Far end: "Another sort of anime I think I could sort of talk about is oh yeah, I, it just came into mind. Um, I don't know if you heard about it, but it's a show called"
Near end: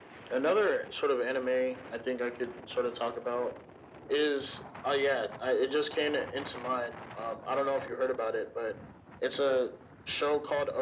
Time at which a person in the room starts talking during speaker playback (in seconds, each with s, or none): none